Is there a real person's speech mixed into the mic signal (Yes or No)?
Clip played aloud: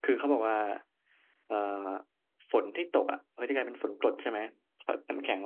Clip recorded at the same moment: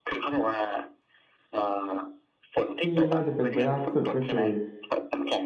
Yes